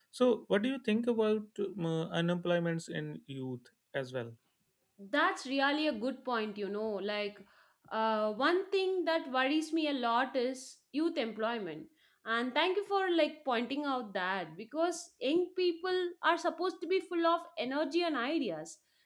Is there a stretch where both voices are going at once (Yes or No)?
No